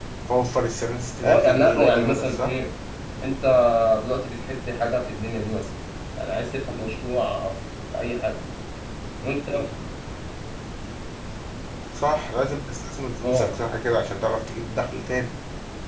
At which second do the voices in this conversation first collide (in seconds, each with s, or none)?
1.2 s